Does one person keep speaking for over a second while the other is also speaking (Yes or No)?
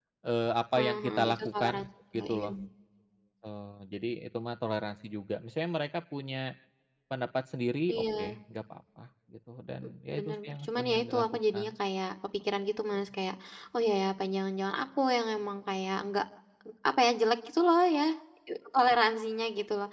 Yes